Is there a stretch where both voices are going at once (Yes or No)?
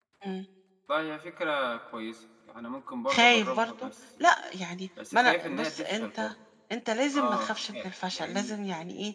Yes